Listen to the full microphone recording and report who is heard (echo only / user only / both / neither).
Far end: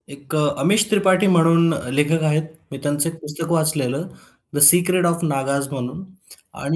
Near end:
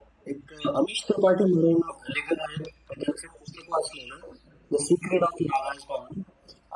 echo only